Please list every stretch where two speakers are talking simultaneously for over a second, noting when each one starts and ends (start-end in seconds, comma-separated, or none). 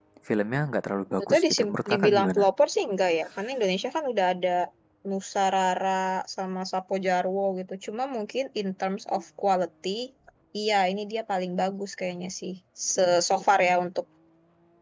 1.2-2.4